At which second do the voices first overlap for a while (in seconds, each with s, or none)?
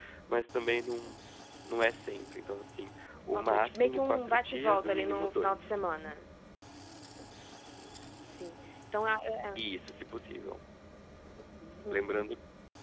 3.3 s